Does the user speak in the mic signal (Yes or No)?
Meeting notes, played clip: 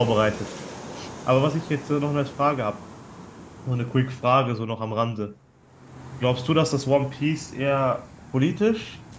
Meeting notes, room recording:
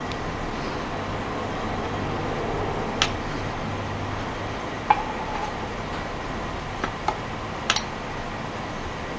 No